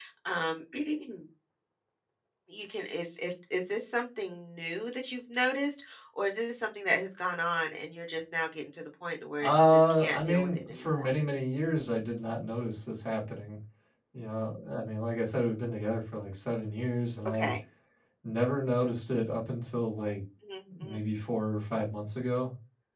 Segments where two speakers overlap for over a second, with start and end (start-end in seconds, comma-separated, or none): 9.4-11.1